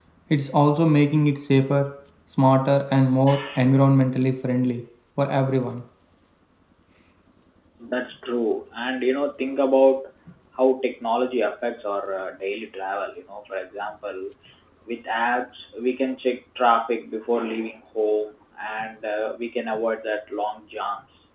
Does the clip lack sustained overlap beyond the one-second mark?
Yes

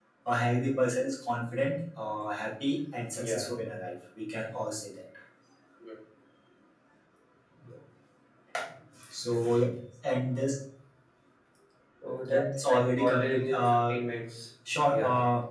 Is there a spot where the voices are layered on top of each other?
Yes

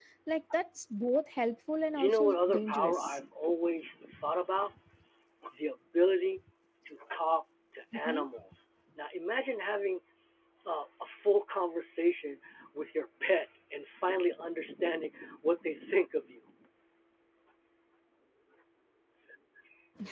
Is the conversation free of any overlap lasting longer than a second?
No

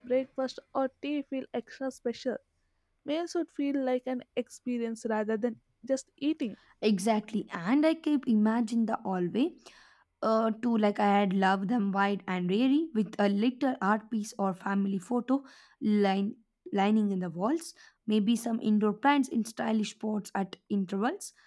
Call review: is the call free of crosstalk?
Yes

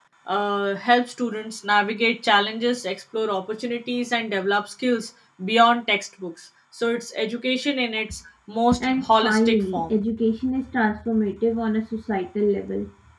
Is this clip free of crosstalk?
No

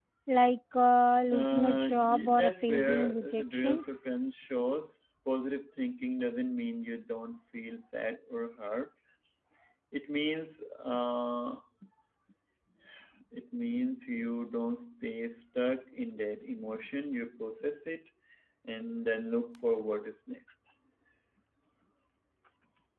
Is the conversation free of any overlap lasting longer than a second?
No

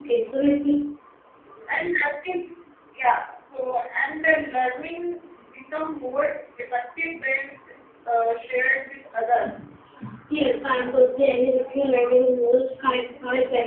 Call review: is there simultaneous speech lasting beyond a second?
No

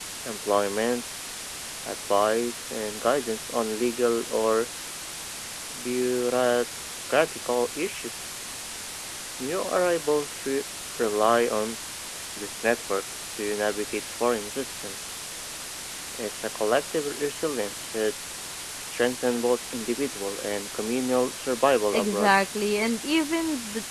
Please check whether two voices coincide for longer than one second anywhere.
No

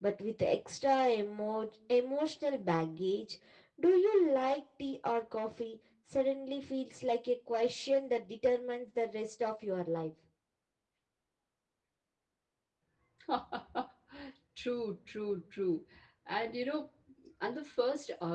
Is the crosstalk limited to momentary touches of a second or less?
Yes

